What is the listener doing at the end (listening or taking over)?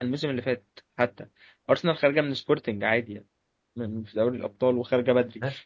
listening